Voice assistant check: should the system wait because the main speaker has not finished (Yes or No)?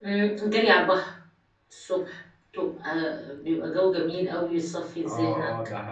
No